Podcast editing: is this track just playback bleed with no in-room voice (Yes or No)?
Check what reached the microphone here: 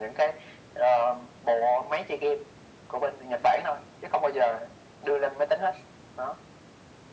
Yes